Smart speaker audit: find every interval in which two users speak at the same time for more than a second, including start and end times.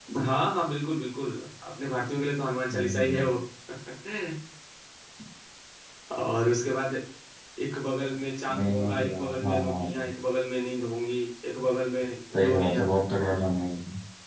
8.6-10.1

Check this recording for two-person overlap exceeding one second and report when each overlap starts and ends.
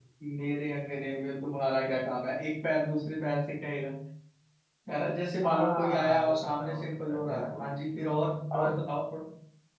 5.4-7.7

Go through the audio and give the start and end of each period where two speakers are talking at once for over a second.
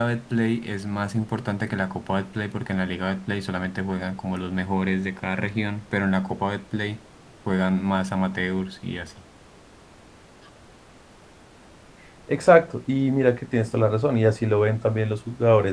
none

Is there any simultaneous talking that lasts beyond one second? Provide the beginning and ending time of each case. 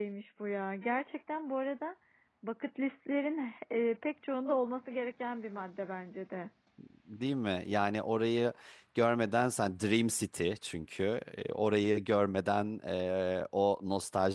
none

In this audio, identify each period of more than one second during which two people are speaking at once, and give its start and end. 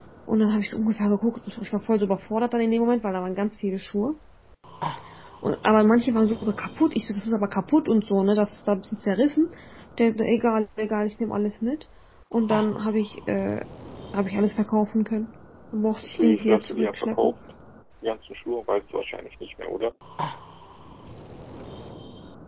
16.0-17.3

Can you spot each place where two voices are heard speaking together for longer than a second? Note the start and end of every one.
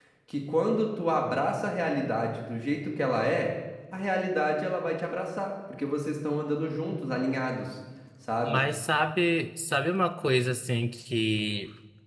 none

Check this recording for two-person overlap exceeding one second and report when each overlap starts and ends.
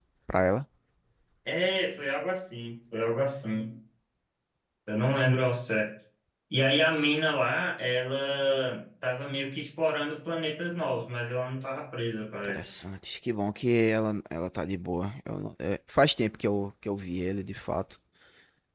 none

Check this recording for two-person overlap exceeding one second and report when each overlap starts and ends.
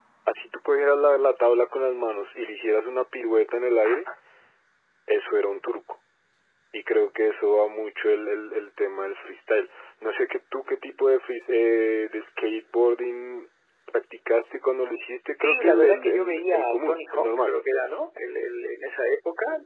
15.3-17.5

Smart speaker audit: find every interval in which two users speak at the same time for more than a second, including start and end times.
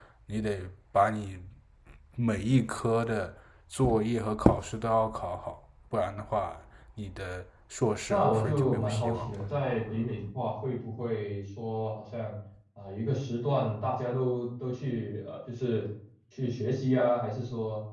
8.1-9.4

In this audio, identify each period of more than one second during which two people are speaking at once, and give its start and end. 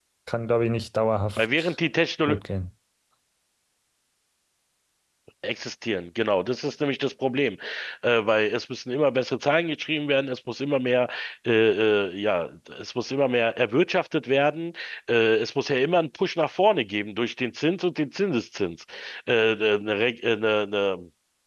none

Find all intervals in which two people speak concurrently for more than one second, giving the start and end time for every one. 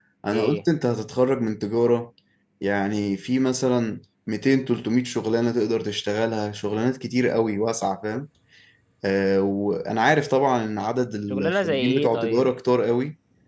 11.3-12.5

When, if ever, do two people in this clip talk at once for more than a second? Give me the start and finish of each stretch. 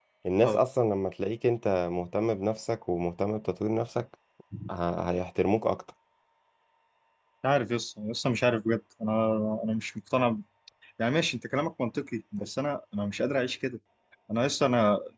none

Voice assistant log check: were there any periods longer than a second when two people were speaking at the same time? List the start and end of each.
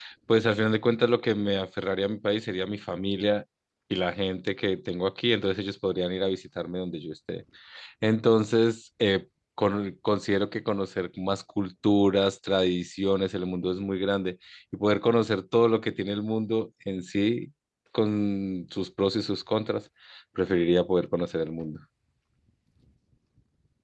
none

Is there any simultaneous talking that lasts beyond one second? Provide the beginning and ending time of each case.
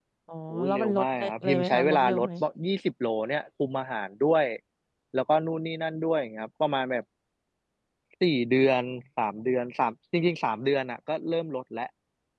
0.5-2.3

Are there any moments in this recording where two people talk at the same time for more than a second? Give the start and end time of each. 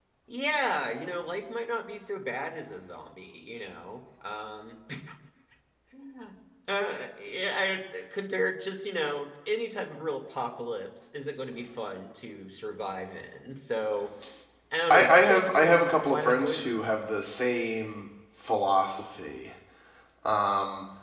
14.9-16.8

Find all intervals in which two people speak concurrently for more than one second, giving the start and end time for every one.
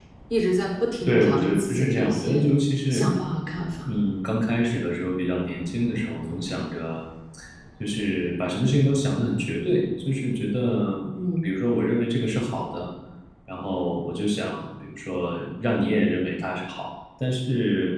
1.1-2.5

